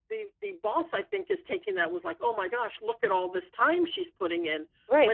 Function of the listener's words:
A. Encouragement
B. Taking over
B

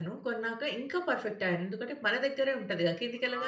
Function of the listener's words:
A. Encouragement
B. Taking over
B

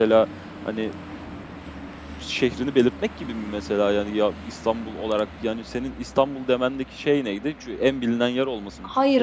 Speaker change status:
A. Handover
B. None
A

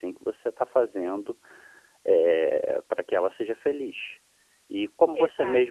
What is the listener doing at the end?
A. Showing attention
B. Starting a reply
A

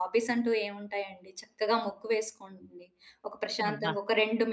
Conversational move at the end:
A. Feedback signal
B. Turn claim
A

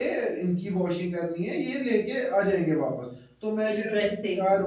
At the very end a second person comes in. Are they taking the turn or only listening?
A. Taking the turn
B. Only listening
B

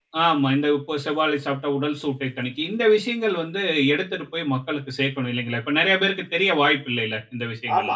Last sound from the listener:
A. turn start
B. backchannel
A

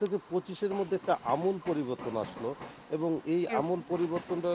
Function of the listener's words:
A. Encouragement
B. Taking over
A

